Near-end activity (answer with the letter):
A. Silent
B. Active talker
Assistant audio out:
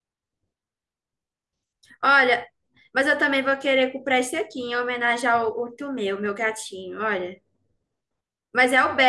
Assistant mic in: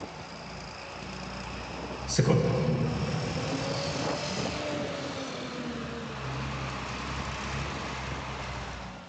B